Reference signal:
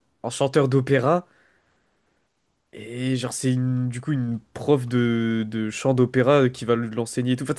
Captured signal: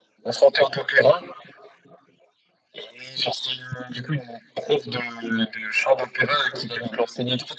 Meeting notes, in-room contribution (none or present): none